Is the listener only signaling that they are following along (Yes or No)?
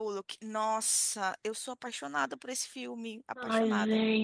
No